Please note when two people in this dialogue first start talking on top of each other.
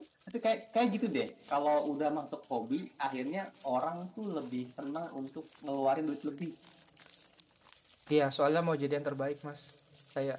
none

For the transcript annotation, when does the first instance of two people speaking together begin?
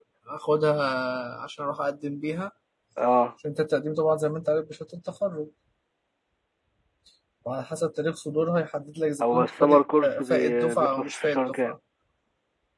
9 s

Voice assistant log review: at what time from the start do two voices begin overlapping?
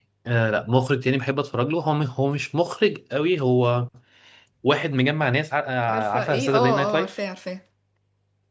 6 s

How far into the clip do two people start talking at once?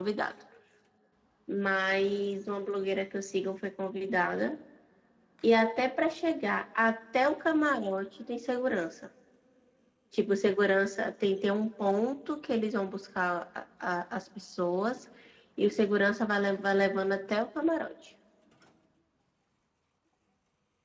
none

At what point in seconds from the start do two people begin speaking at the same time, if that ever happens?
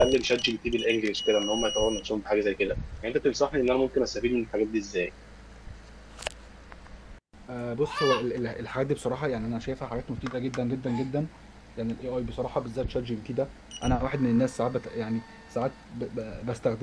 none

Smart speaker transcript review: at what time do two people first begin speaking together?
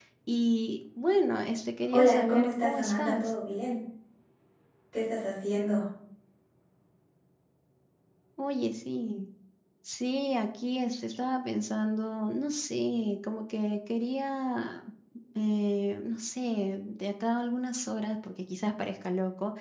2 s

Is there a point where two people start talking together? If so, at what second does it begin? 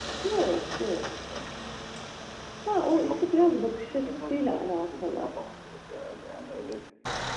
3 s

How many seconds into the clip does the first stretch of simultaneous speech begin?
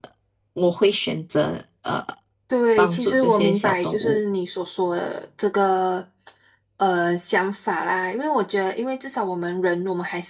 3 s

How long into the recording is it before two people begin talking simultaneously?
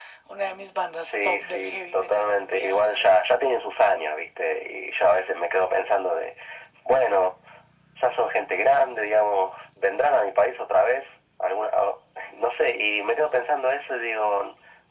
1 s

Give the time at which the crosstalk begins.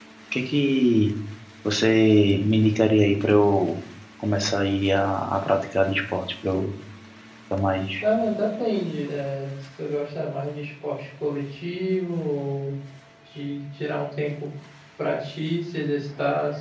none

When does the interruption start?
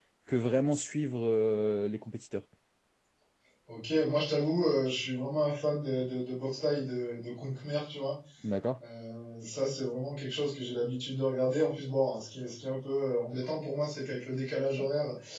none

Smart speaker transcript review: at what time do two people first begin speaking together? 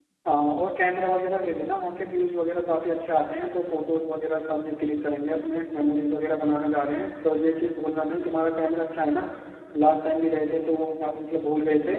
none

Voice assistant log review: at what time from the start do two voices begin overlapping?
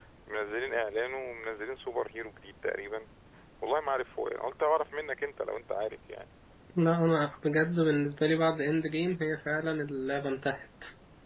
none

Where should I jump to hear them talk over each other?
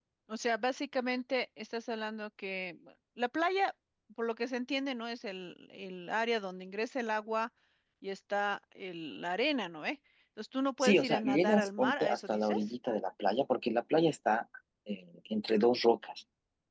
11 s

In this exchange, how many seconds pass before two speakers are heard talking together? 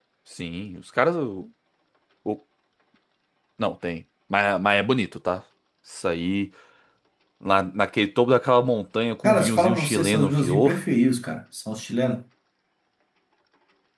9 s

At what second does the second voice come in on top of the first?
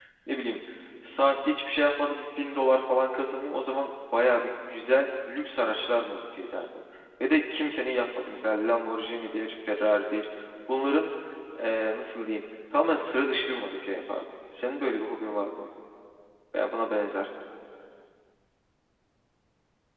none

